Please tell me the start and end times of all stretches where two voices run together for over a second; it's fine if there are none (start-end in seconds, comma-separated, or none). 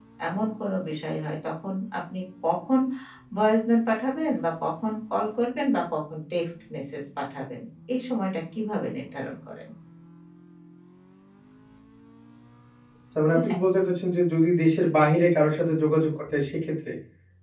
none